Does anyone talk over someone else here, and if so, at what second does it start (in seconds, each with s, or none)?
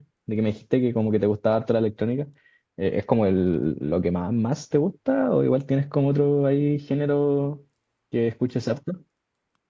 none